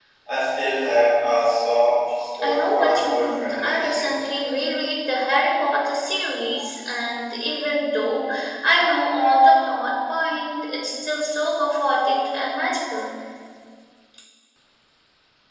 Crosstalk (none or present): present